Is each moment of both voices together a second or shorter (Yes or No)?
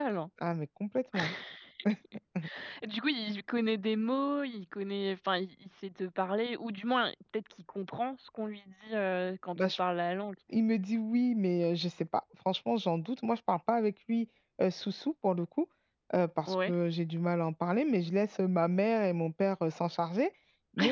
Yes